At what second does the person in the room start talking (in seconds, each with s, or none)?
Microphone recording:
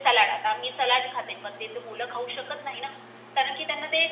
none